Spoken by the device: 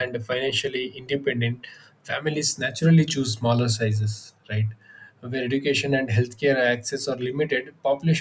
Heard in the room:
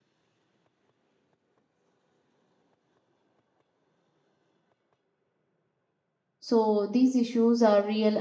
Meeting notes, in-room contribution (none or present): present